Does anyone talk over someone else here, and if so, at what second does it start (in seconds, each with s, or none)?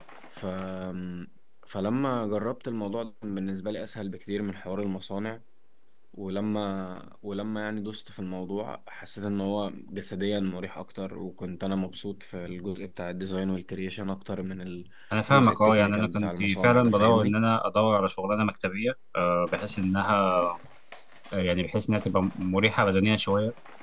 15.3 s